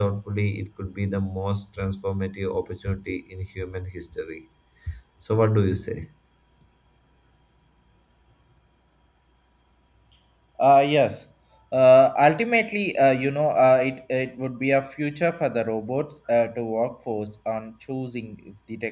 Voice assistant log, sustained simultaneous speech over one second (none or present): none